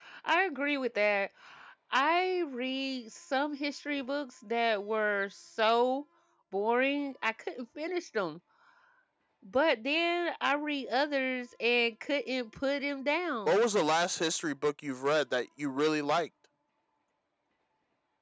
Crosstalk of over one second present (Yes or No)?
No